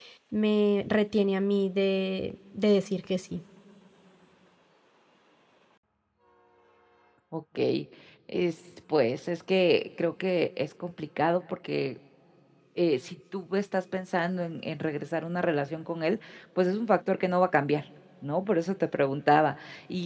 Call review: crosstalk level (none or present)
none